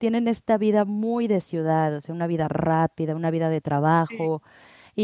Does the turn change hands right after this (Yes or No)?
No